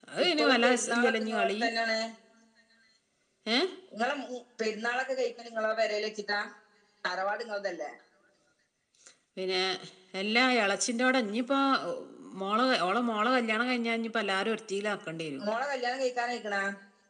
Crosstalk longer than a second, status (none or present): present